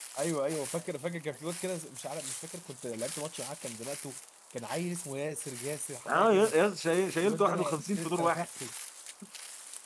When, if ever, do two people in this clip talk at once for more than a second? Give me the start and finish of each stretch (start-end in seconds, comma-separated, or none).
7.2-8.5